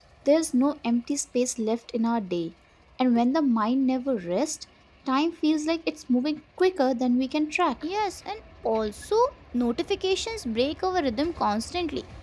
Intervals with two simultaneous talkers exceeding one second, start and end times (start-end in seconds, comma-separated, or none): none